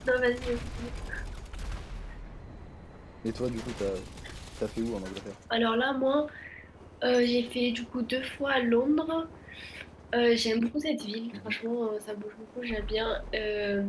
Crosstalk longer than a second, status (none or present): none